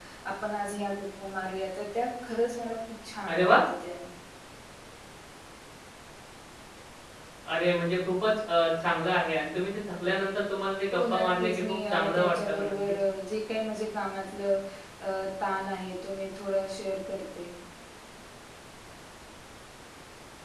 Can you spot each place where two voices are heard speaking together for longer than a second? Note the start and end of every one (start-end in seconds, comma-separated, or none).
10.9-12.7